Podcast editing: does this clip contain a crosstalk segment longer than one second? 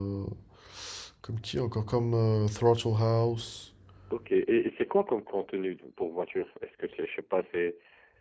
No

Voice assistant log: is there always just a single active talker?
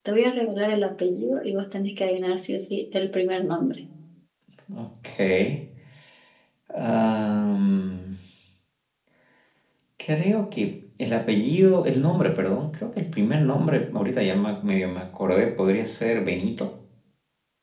Yes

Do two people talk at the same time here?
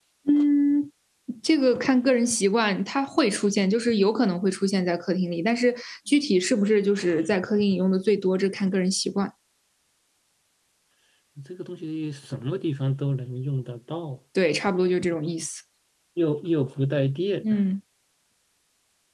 No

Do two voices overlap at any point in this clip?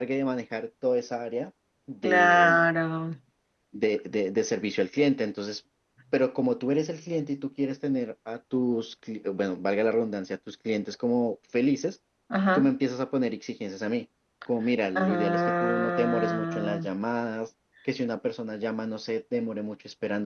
Yes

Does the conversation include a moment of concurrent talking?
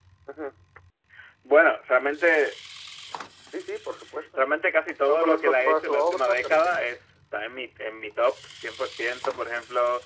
Yes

